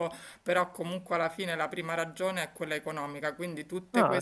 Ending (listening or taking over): listening